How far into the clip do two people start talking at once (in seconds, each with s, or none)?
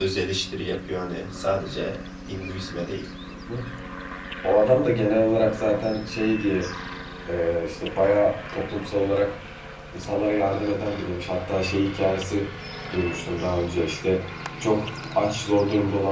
none